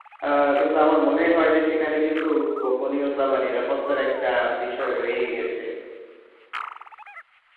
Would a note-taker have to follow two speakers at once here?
No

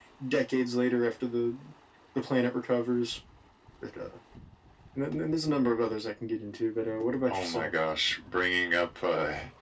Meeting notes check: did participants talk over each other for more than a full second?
No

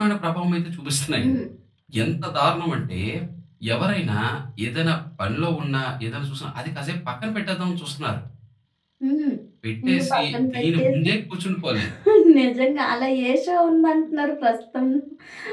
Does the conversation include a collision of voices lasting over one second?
Yes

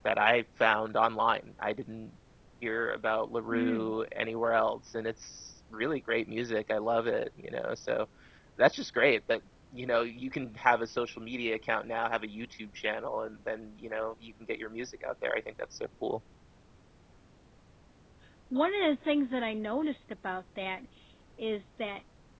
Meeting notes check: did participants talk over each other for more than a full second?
No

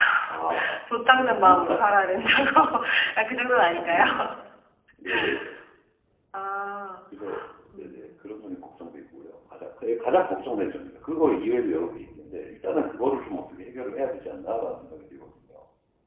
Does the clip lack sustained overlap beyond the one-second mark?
No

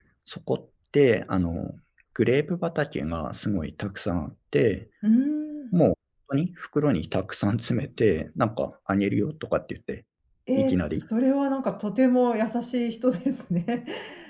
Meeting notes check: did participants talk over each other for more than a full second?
No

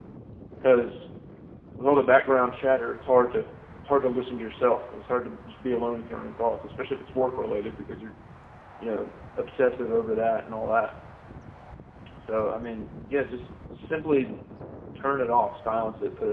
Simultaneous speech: No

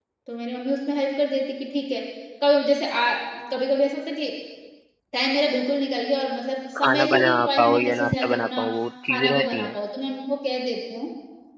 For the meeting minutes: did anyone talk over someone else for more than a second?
Yes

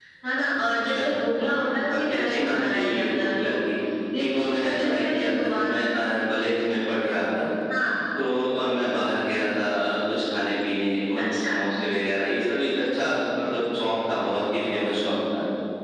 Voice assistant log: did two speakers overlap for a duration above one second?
Yes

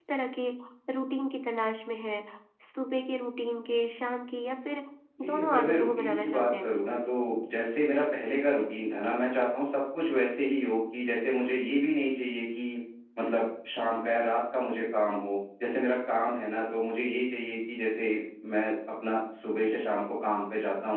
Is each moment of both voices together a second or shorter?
No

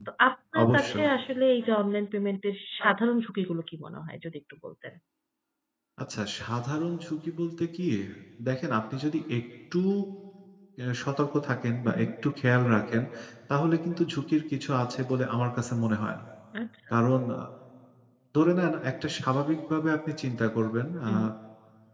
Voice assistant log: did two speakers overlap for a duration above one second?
No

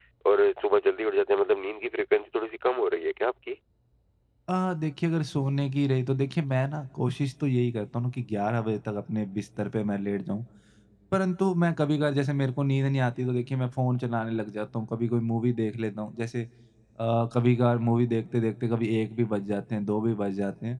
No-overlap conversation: Yes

